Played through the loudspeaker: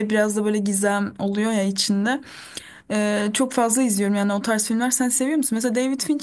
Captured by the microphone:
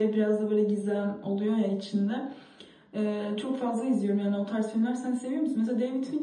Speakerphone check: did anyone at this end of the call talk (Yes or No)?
No